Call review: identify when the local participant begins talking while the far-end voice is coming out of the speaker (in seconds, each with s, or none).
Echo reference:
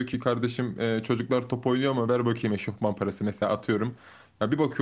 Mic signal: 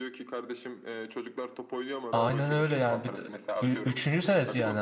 2.1 s